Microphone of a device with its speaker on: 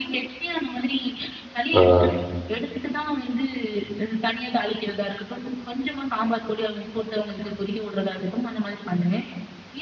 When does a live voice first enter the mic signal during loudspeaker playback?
1.8 s

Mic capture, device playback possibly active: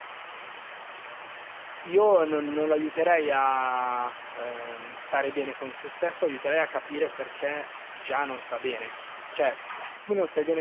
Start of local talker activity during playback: 1.8 s

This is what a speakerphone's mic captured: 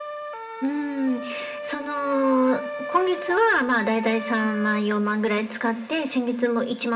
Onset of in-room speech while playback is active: none

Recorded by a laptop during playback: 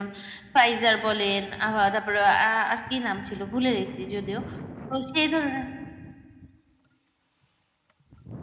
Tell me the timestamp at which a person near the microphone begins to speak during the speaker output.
none

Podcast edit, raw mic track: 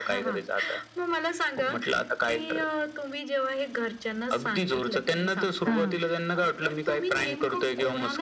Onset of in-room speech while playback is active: 5.6 s

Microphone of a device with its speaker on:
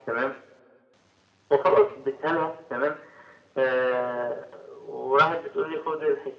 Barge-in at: none

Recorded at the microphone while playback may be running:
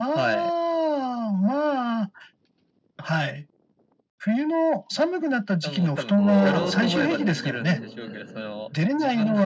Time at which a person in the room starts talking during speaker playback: 6.2 s

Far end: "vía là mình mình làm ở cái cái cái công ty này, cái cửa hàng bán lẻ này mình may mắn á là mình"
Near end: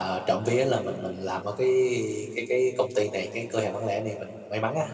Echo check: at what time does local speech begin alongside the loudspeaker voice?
none

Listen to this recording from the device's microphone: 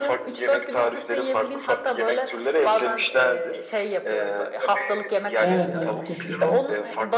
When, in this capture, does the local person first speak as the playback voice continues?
5.4 s

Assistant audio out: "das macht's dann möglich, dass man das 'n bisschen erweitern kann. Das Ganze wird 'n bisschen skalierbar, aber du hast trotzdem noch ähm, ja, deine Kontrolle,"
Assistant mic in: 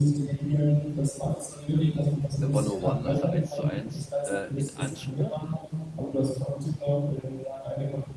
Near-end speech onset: 2.4 s

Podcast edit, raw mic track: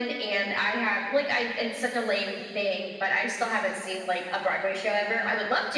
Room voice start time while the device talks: none

